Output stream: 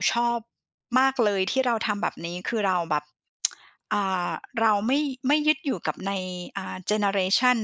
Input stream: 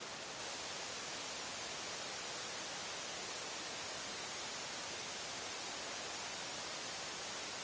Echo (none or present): none